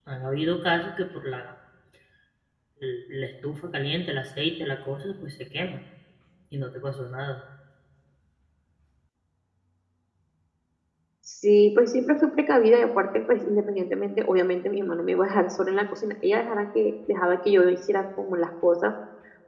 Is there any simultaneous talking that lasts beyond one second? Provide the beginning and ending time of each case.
none

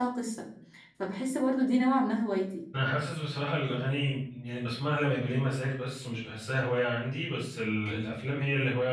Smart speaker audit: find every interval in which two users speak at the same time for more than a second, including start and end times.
none

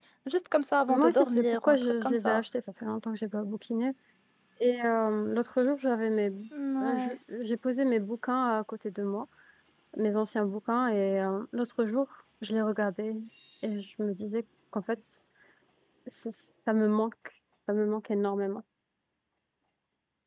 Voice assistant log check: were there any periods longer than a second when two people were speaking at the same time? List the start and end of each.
0.9-2.4

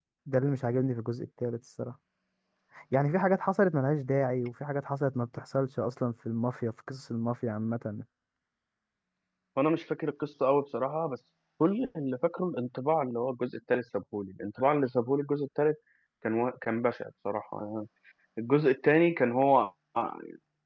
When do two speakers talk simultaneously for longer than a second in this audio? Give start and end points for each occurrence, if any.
none

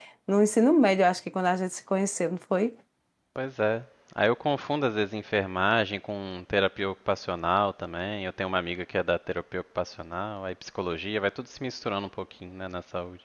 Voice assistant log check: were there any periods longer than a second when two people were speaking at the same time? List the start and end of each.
none

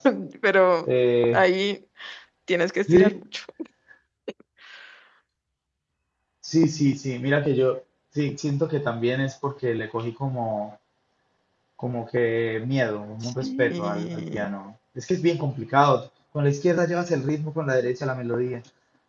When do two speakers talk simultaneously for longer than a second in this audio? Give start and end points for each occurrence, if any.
13.2-14.6

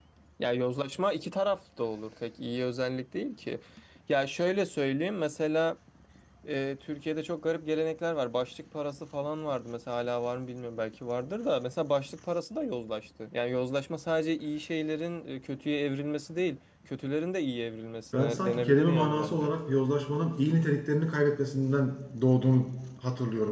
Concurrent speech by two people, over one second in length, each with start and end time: 18.1-19.5

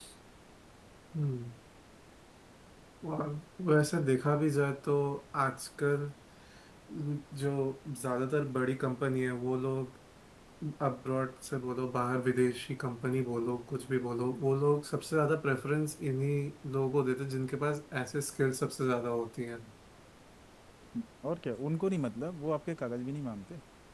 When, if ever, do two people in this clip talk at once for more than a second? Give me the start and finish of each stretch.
none

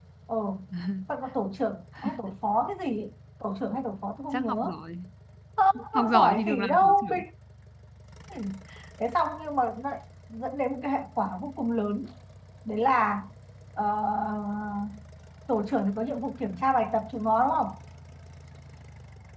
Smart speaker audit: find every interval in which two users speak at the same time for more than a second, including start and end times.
6.0-7.2

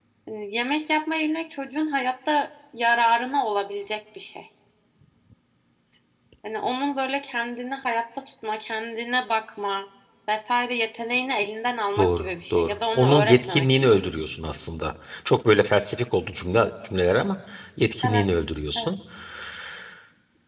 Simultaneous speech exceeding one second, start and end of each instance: 12.0-14.0

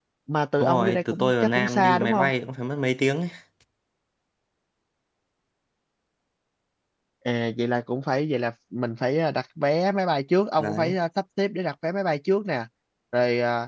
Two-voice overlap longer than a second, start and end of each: 0.6-2.3

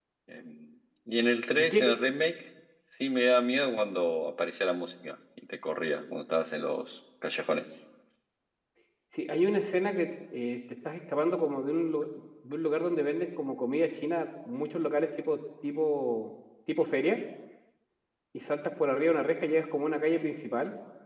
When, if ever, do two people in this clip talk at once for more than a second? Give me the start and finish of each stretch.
none

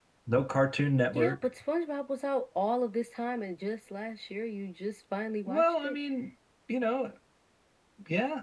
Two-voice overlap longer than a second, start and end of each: none

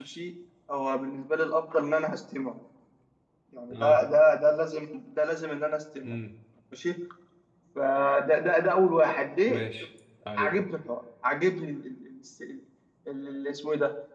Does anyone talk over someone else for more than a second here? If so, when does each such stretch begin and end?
none

